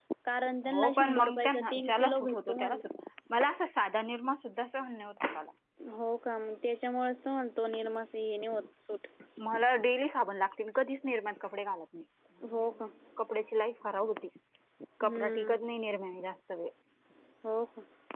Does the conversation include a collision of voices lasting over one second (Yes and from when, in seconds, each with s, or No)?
Yes, from 0.7 s